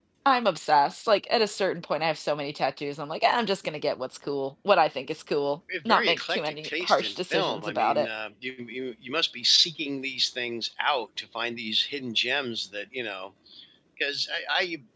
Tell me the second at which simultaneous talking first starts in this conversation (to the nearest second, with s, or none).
6 s